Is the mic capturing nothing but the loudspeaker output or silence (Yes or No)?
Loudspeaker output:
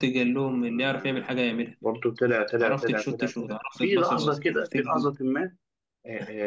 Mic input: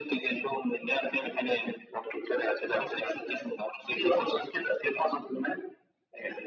Yes